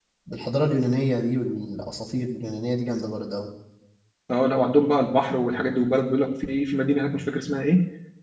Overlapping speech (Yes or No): No